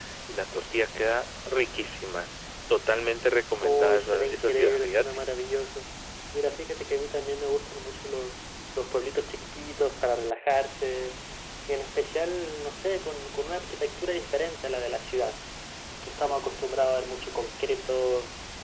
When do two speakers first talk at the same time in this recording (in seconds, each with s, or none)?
3.6 s